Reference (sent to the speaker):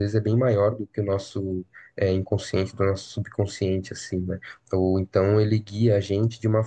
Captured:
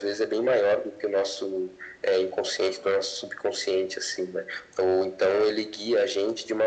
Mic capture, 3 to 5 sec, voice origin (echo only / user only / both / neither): echo only